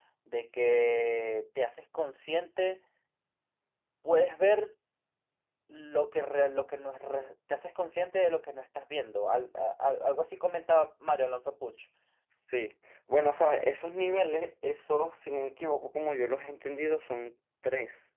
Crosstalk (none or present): none